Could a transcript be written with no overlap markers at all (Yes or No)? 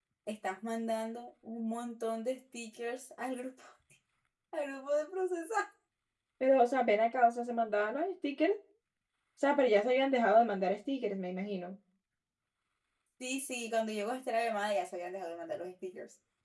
Yes